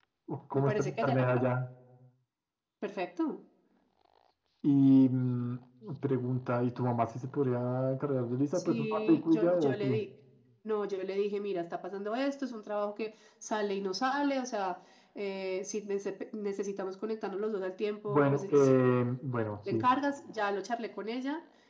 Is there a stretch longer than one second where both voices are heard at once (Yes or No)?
Yes